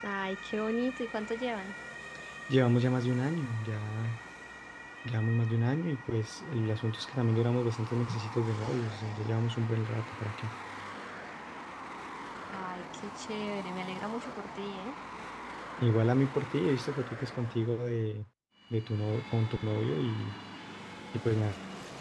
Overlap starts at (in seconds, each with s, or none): none